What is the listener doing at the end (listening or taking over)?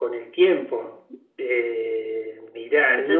listening